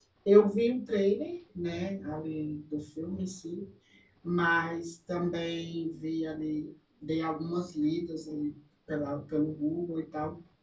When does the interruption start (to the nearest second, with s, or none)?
none